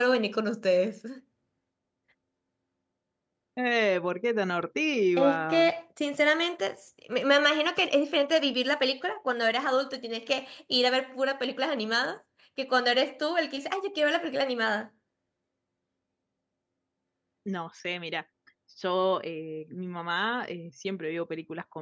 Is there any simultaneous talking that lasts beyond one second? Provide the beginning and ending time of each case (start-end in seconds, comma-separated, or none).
none